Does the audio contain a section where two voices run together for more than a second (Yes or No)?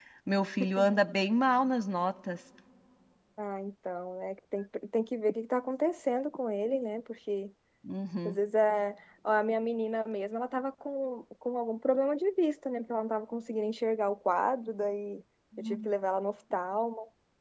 No